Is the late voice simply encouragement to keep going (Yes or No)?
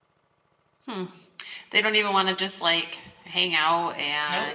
No